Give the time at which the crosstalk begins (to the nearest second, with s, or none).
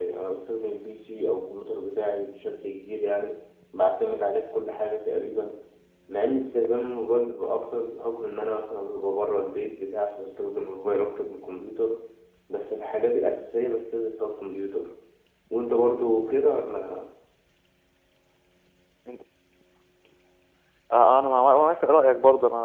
none